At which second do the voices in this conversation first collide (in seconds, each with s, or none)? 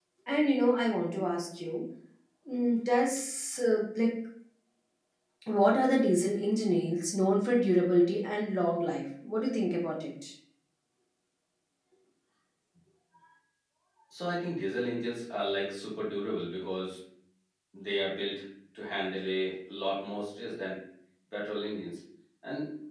none